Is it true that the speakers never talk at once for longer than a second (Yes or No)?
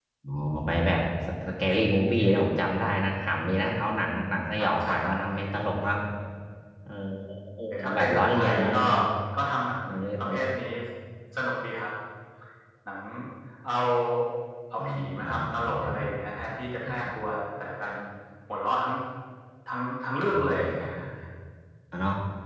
No